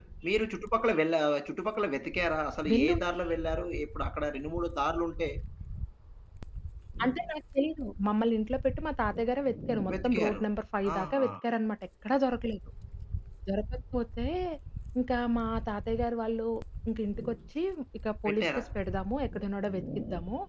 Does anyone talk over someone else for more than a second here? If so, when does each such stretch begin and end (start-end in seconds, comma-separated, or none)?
none